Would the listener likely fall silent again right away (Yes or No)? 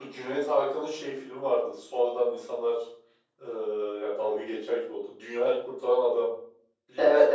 No